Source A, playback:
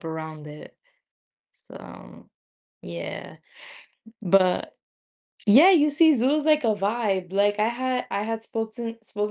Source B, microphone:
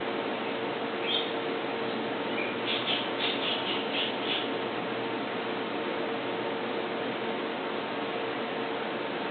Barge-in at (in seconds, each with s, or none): none